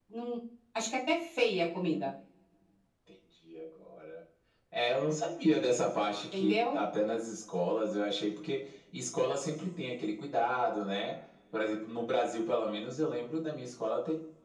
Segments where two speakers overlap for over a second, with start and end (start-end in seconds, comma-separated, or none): none